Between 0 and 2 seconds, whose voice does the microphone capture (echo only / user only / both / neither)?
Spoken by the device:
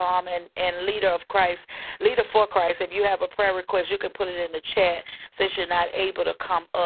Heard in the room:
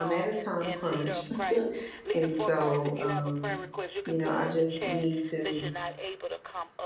both